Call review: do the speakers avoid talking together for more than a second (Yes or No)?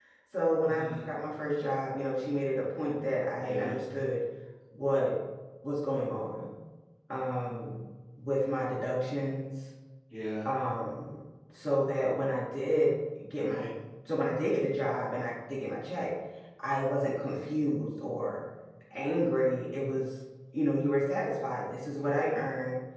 Yes